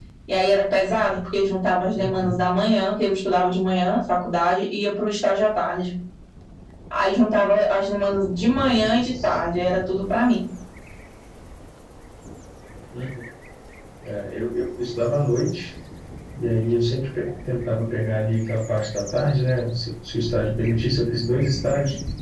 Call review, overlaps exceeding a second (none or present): none